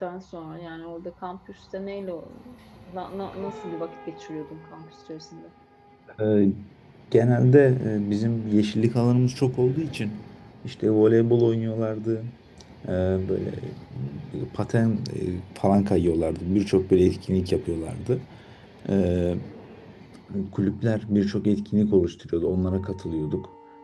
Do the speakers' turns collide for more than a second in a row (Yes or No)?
No